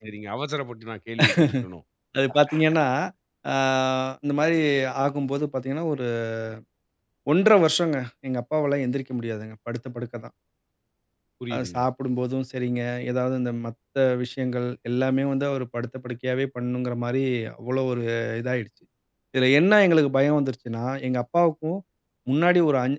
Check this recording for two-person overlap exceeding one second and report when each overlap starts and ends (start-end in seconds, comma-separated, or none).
none